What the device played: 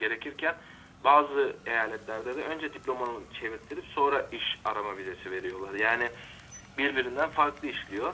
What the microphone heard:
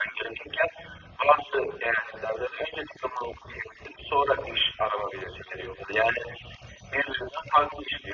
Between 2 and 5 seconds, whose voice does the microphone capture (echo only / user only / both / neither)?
echo only